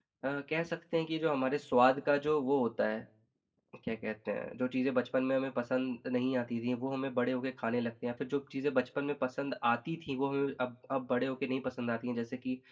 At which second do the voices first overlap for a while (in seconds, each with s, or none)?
none